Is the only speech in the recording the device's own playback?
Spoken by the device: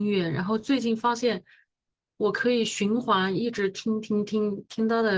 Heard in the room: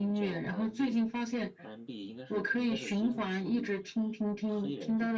No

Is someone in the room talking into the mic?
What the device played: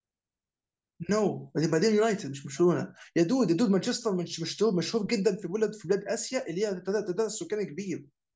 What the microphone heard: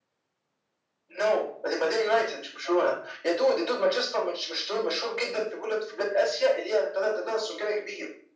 No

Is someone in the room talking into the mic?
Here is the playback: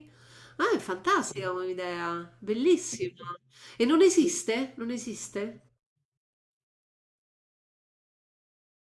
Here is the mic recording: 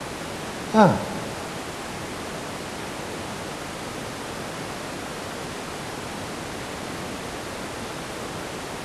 Yes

